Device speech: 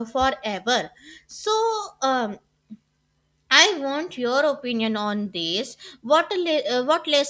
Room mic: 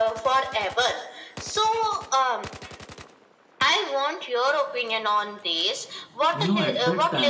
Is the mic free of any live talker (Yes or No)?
No